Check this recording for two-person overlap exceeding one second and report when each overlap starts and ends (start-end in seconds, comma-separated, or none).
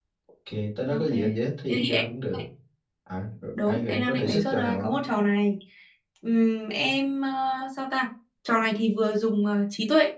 3.7-4.9